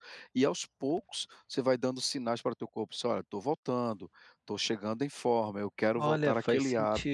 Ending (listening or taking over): taking over